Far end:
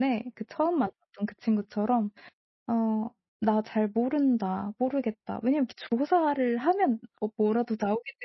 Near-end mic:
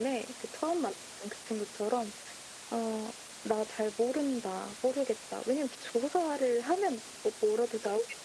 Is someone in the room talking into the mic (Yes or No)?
No